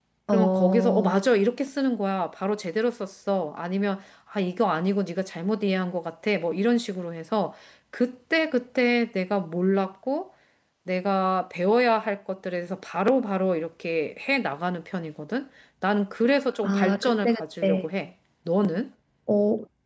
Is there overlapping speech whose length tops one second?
Yes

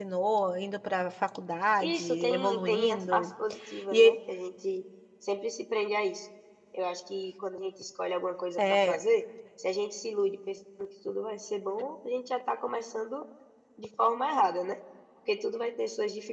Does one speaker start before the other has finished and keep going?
Yes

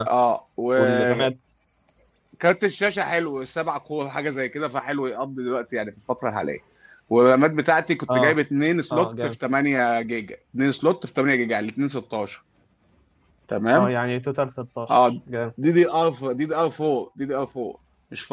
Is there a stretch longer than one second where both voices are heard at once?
No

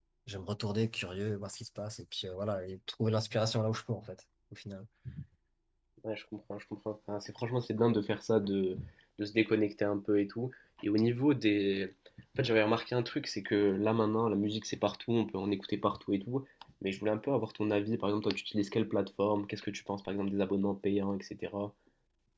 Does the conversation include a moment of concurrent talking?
No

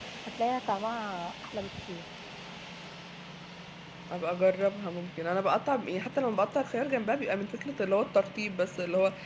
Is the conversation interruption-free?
Yes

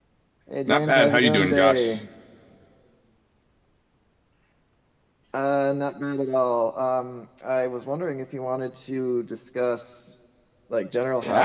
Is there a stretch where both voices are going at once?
Yes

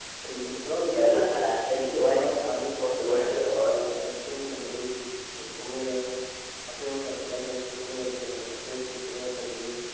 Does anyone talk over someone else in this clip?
Yes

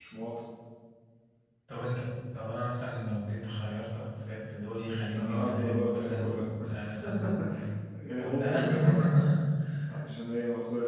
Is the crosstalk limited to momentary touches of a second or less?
No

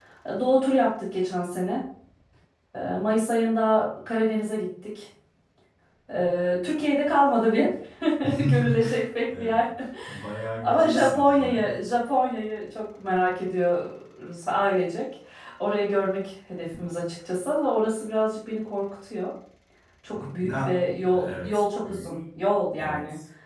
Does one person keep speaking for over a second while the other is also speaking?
Yes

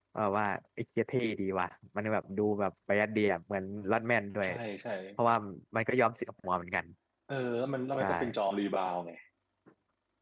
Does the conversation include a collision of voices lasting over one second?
No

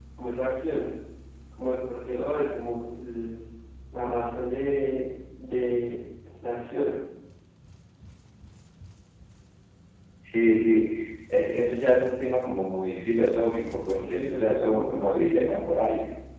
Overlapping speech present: Yes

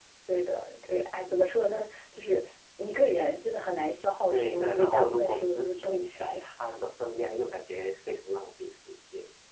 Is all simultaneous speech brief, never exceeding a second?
No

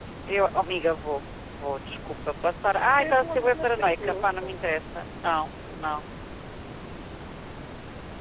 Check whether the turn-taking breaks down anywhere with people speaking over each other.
Yes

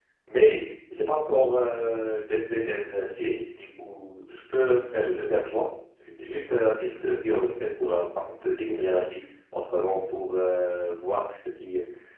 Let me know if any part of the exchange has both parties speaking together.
No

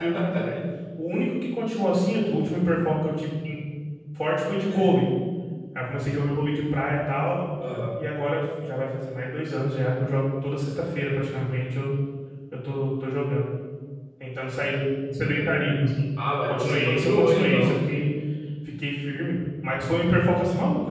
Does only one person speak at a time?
No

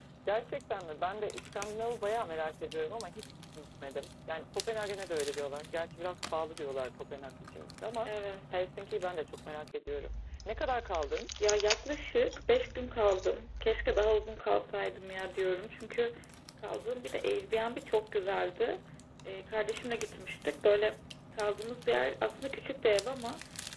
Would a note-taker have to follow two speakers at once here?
No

